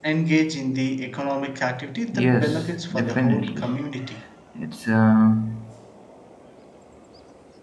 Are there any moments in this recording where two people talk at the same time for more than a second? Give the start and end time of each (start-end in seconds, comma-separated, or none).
2.1-3.7